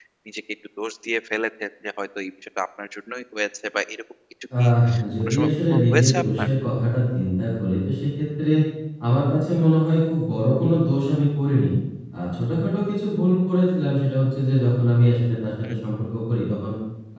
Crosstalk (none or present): present